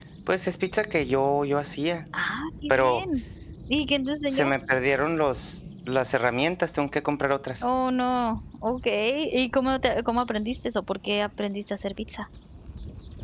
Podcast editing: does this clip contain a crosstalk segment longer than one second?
No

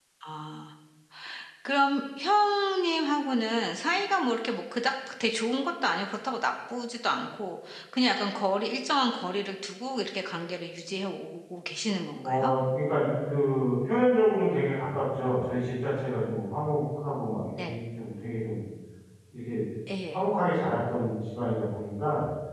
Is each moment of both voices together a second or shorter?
Yes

